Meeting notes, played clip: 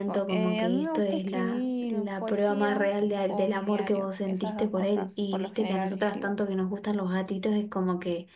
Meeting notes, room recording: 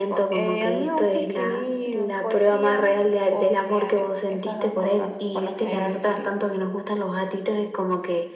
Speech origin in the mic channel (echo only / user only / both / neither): echo only